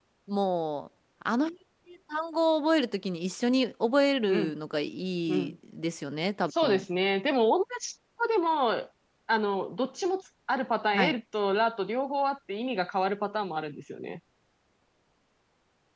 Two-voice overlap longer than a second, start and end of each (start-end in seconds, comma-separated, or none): none